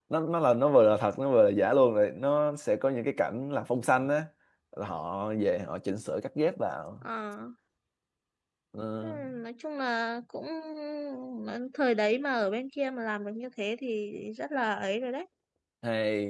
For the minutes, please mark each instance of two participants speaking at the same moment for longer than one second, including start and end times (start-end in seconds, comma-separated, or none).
none